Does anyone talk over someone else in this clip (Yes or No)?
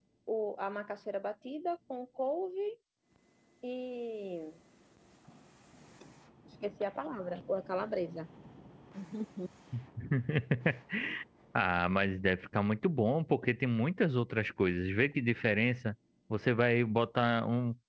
No